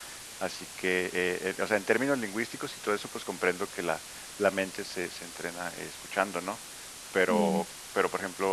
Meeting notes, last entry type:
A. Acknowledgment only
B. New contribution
A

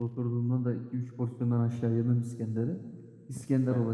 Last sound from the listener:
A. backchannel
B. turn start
A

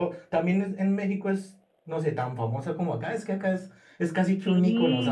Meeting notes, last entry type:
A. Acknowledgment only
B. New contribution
A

